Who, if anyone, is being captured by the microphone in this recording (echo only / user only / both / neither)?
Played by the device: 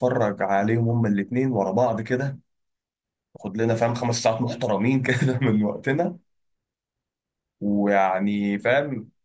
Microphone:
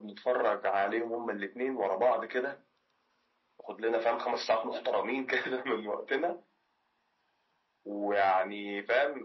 echo only